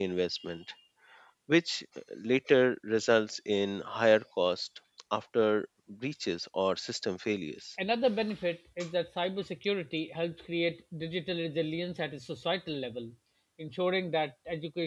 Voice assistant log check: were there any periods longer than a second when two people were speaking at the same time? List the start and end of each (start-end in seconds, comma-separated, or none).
none